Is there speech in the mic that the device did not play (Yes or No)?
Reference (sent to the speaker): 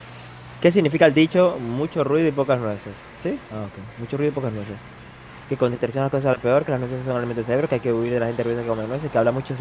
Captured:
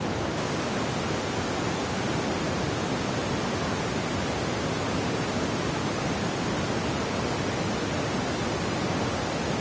No